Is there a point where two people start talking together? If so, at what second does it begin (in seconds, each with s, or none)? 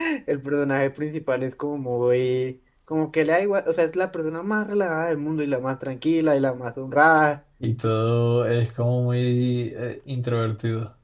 none